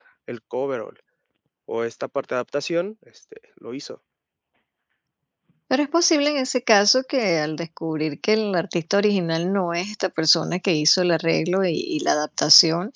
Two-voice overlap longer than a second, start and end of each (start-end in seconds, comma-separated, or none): none